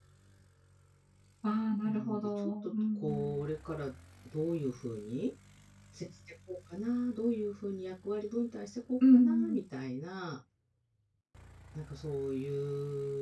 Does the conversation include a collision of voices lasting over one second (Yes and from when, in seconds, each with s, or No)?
Yes, from 1.8 s